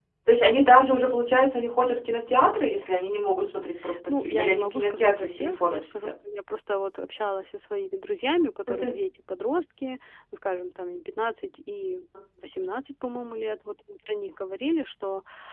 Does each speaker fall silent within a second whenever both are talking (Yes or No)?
No